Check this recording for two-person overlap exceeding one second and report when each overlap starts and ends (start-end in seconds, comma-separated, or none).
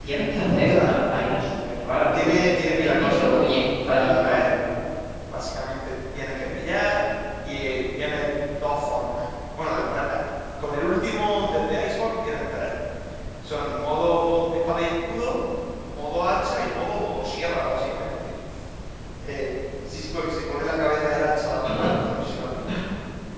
2.8-4.5